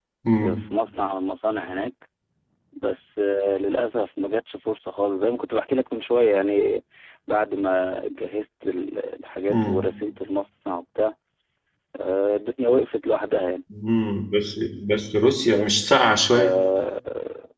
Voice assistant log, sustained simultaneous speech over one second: none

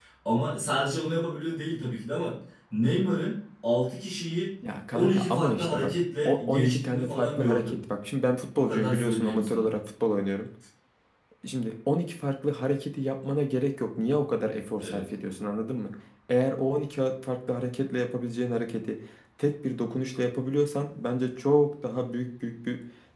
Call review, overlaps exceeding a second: present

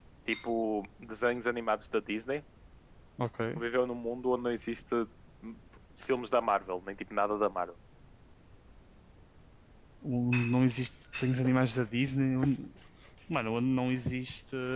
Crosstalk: none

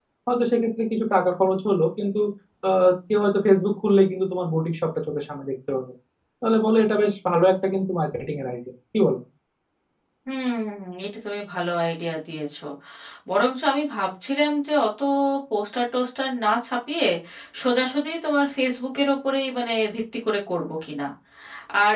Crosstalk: none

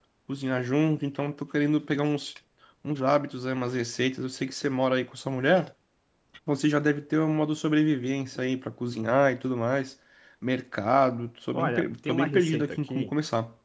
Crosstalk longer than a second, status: present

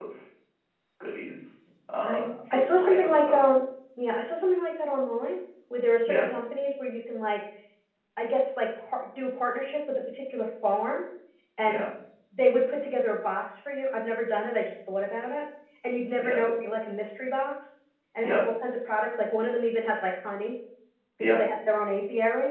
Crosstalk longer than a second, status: present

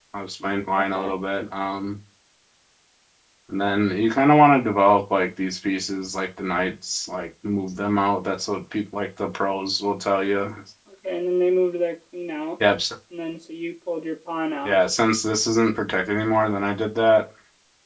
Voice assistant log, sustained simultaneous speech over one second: none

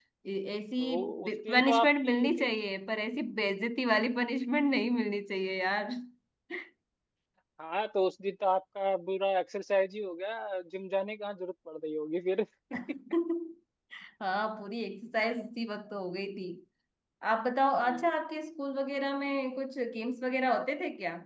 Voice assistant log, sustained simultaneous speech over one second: present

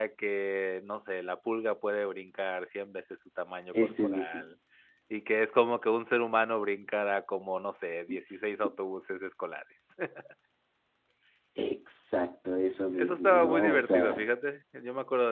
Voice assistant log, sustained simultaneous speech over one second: present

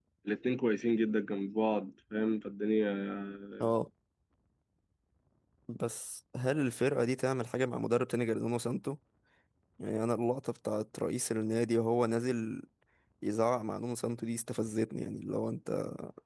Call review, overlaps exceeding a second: none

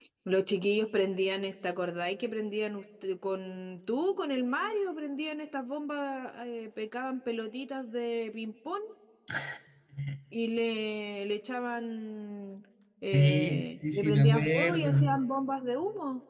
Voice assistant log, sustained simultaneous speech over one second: present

